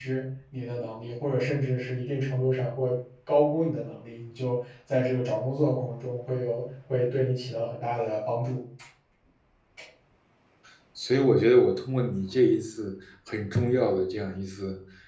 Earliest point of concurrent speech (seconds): none

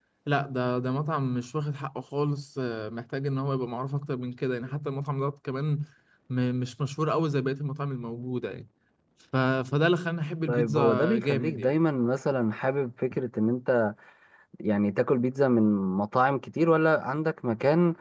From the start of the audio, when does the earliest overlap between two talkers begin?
10.5 s

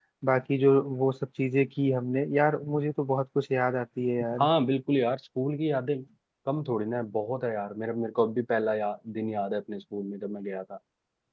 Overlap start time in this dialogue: none

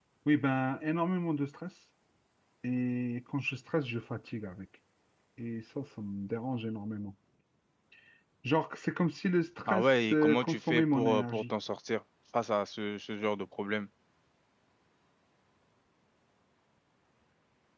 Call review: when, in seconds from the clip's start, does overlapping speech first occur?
9.7 s

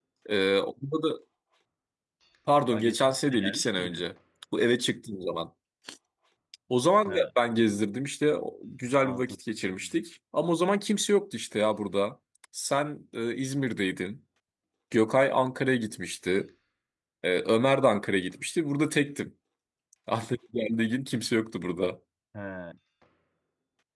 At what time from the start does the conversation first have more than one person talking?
2.7 s

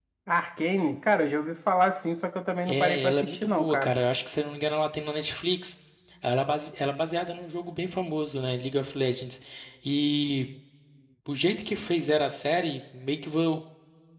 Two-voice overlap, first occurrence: 2.7 s

